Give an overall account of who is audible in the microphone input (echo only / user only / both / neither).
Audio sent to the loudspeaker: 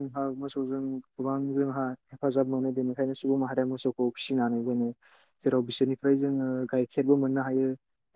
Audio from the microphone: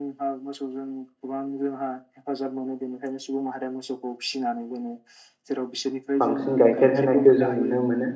both